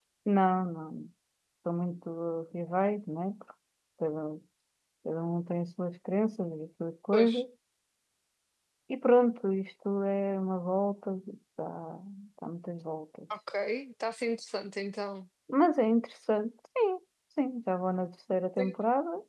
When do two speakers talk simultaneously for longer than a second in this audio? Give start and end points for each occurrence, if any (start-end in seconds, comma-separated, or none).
none